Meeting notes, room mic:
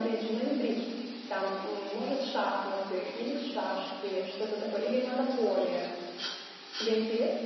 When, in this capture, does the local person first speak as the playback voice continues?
none

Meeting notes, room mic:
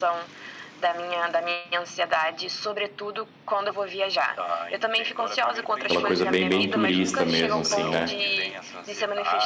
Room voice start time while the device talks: 5.9 s

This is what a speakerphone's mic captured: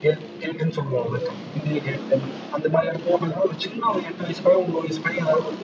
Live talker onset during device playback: none

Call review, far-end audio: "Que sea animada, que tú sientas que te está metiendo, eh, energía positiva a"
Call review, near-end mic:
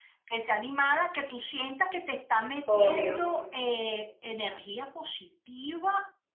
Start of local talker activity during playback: 2.6 s

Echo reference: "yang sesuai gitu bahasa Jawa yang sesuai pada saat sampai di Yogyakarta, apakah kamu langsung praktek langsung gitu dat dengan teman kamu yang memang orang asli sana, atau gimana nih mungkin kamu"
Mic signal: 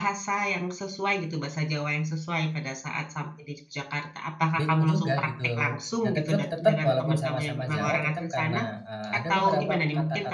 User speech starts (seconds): 4.5 s

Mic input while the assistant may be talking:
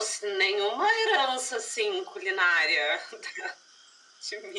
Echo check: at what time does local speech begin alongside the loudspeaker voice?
none

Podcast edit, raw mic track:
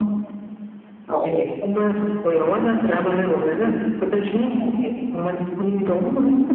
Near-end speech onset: 1.1 s

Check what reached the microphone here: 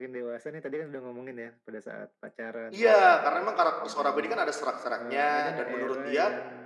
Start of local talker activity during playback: 2.7 s

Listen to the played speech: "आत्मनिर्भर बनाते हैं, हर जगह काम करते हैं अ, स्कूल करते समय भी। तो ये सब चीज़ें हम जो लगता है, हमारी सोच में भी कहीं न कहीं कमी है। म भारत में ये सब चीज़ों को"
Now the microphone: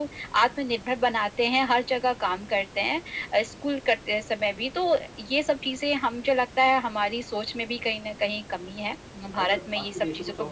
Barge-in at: 9.4 s

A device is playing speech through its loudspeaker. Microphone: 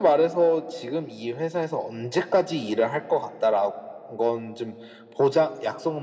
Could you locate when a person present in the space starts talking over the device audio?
none

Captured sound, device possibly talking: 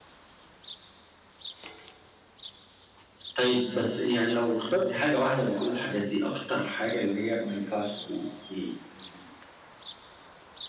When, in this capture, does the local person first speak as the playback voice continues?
3.3 s

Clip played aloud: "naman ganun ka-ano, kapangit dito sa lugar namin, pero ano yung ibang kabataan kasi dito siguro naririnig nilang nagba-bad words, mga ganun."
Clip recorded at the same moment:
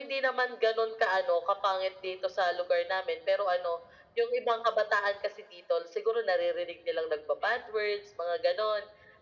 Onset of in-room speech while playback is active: none

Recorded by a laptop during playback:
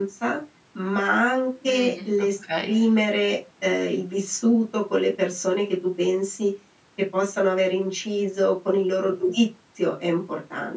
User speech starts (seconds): 1.6 s

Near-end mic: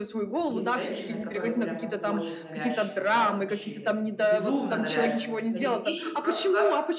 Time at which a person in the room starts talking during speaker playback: 0.5 s

